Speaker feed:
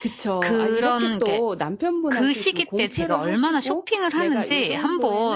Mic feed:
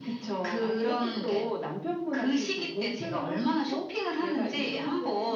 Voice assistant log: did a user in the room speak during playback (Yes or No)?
No